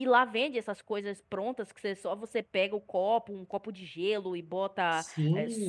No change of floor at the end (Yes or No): No